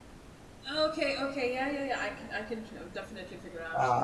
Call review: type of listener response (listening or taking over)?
taking over